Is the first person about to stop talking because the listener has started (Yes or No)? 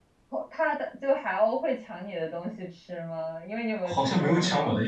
Yes